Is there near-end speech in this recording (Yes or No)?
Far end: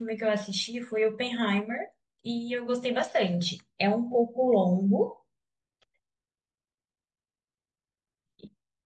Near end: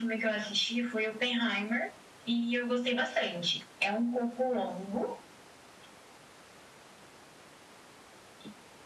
No